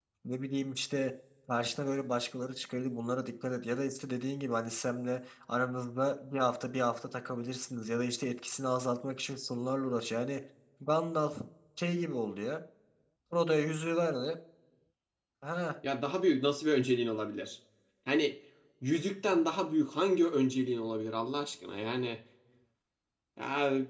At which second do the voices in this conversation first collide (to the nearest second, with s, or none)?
none